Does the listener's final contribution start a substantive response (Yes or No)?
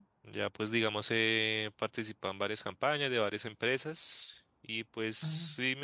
No